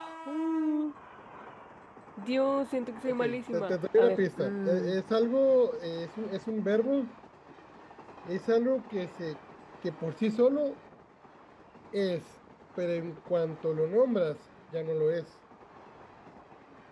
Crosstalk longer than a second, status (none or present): present